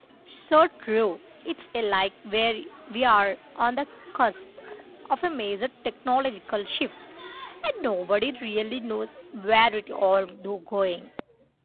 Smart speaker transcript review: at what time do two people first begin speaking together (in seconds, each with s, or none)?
none